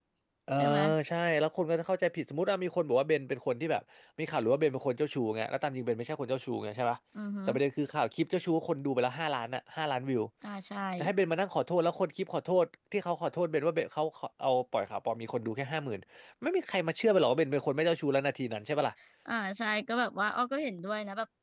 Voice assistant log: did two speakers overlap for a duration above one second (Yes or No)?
No